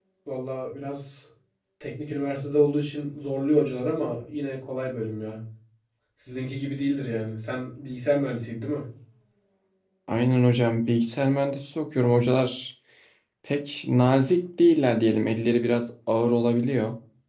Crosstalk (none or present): none